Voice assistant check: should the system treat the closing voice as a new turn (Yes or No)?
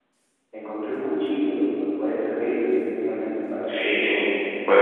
Yes